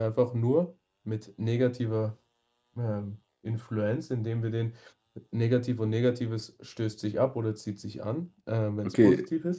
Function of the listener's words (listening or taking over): listening